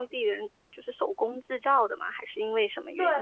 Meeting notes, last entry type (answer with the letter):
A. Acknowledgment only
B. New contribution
B